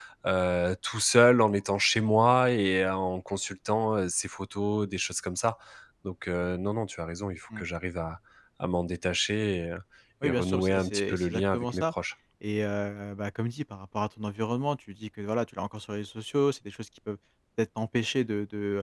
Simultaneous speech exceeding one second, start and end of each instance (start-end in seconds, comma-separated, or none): 10.2-11.8